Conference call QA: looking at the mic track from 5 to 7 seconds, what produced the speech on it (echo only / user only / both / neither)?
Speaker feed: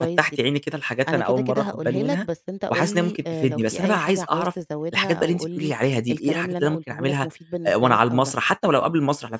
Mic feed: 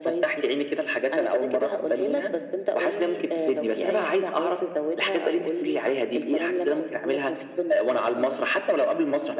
echo only